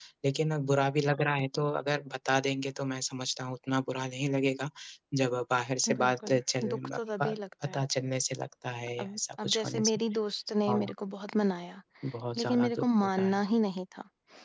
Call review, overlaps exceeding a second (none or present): present